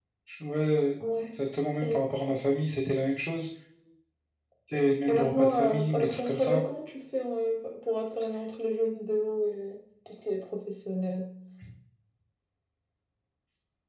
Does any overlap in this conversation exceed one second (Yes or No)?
Yes